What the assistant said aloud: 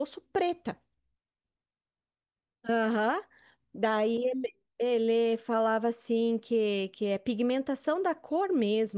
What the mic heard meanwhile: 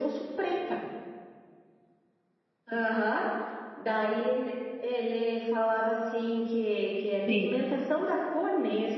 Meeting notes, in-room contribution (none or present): present